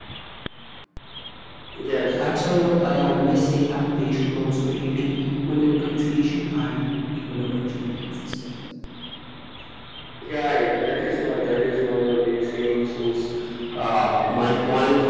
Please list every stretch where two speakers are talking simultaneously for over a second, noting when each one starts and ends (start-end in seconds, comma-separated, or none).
none